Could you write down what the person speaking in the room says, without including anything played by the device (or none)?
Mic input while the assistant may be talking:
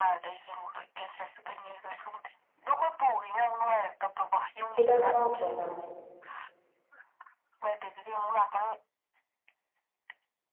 ꯍꯤꯗꯥꯛ ꯆꯥꯗ꯭ꯔꯣ ꯅꯪ?